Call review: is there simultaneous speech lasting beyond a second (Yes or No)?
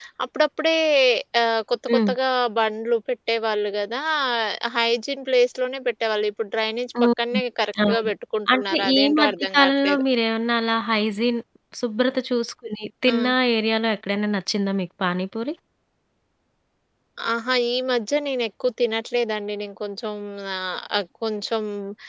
Yes